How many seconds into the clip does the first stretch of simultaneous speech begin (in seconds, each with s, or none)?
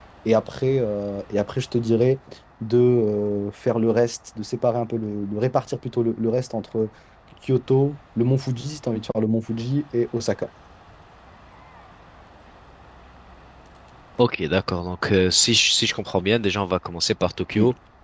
none